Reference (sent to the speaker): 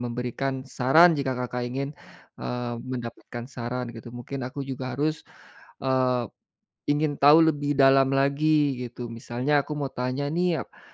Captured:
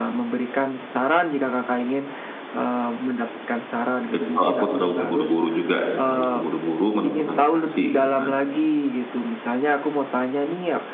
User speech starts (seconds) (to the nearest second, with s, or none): 4 s